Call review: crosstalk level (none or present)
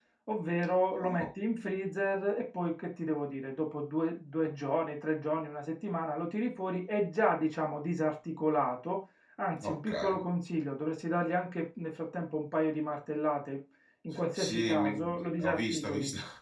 present